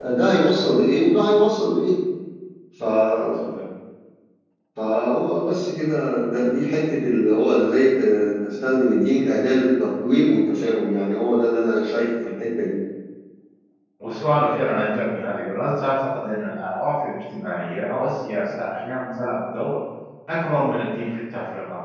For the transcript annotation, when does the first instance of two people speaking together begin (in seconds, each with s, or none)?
none